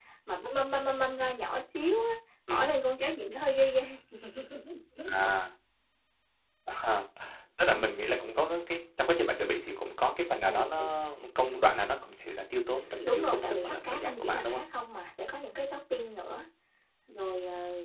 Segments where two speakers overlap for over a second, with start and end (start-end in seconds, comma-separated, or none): 13.0-14.6